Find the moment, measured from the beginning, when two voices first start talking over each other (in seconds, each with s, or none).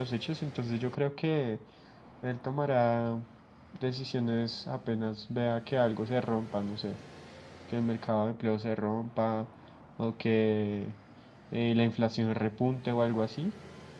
none